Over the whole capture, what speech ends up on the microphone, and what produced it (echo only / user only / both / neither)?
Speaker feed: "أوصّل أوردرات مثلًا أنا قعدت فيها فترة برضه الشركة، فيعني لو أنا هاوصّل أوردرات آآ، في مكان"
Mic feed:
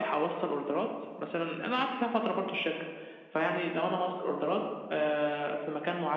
echo only